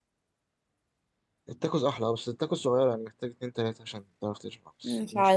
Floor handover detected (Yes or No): Yes